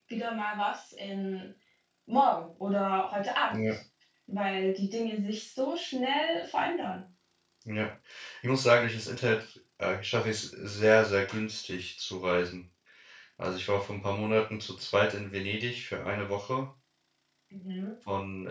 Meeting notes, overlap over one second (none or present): none